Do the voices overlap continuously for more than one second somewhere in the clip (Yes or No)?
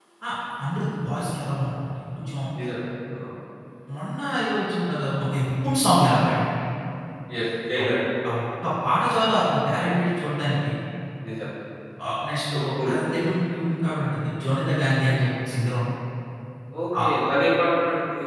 No